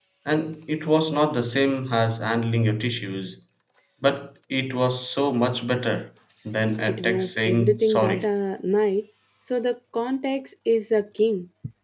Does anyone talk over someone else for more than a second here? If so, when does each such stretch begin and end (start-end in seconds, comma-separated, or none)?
6.9-8.3